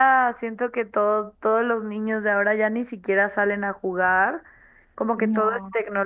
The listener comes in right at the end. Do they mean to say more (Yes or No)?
No